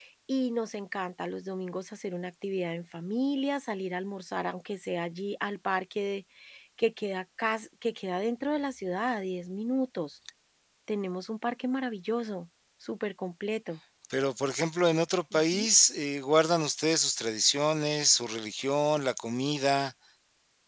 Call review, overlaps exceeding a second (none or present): none